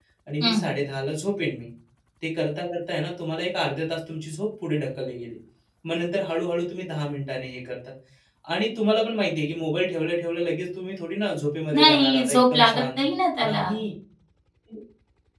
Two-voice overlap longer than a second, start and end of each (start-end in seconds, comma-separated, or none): 11.7-13.0